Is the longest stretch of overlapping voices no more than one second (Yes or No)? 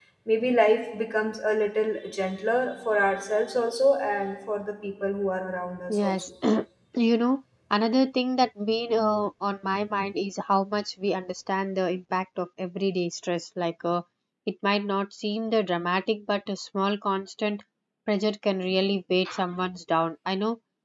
Yes